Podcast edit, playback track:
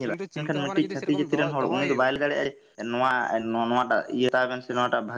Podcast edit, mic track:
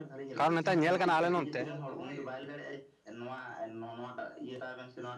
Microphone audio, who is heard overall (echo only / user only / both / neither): both